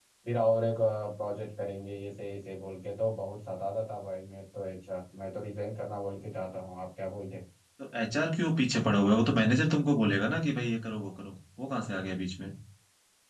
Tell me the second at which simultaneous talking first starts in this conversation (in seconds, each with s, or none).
none